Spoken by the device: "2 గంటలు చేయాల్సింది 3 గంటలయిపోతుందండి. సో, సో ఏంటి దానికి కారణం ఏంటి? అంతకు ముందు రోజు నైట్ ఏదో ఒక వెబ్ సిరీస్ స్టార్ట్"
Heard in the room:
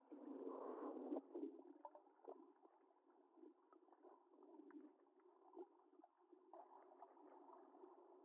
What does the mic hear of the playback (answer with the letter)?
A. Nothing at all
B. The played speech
A